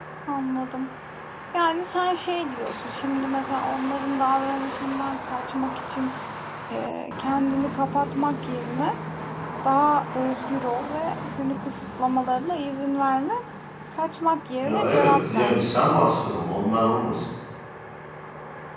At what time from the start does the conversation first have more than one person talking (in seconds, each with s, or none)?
14.6 s